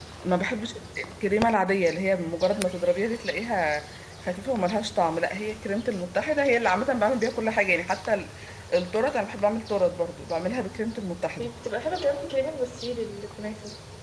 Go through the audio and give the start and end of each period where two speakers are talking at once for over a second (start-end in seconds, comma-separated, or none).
none